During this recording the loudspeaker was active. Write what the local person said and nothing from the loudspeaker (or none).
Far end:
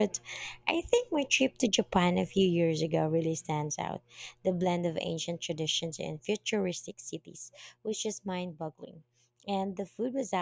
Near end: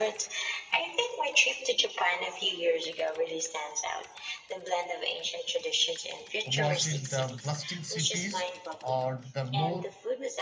was it the bustling cities or the more